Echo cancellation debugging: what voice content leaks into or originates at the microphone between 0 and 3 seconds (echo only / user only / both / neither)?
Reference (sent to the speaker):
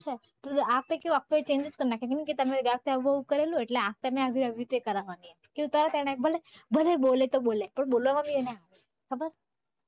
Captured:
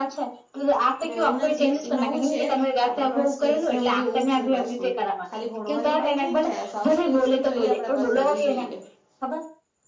both